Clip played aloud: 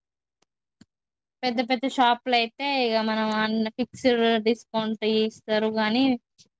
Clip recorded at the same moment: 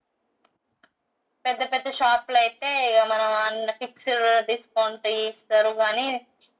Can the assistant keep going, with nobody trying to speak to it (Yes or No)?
Yes